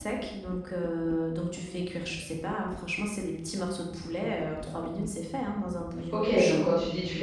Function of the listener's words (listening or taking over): taking over